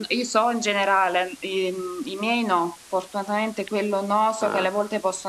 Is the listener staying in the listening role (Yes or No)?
Yes